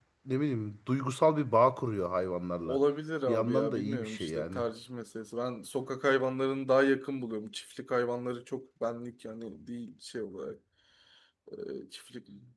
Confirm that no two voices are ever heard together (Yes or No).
No